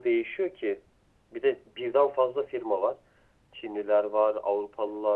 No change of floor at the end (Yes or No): Yes